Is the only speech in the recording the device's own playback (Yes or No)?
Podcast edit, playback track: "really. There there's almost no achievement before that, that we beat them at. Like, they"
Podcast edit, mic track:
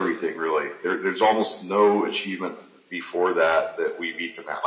Yes